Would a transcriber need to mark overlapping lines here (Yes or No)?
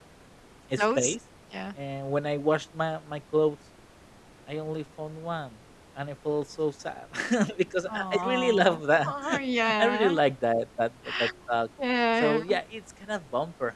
Yes